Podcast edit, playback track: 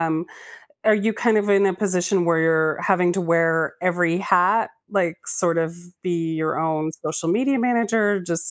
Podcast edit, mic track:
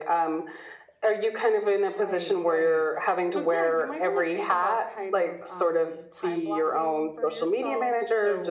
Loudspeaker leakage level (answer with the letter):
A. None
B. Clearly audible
B